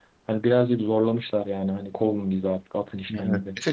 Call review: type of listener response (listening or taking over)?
taking over